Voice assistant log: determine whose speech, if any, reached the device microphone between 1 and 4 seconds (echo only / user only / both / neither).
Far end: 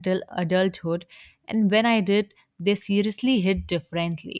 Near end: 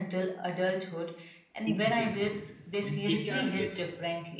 both